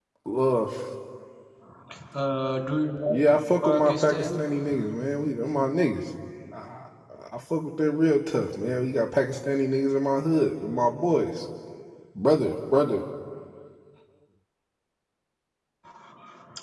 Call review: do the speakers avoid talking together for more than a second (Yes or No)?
No